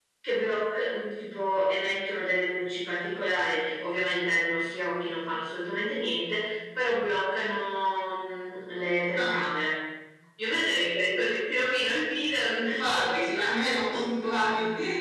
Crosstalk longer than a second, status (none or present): present